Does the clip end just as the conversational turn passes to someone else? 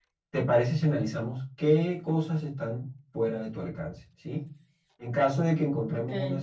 No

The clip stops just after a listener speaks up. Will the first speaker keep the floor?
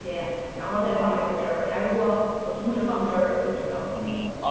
No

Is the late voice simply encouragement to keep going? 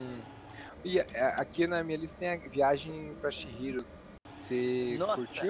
No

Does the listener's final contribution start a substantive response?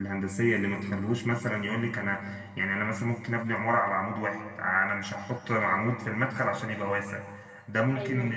Yes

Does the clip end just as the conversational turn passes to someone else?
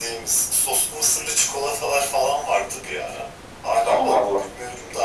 No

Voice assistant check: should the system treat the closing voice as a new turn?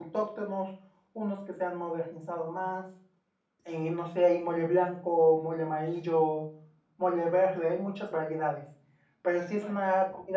No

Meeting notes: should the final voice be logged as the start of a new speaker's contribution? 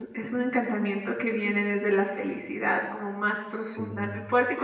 No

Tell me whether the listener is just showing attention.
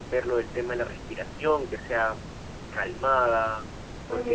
No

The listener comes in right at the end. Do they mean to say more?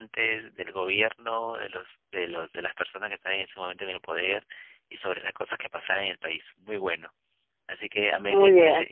No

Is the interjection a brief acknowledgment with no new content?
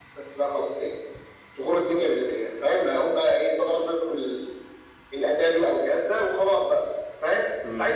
Yes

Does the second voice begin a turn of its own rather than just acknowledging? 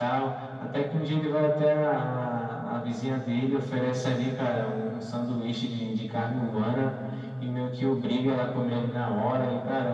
No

